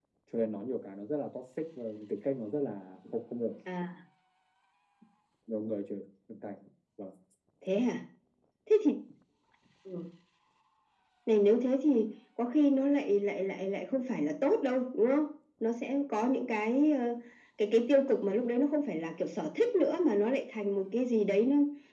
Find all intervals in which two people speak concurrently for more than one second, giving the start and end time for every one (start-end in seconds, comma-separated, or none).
none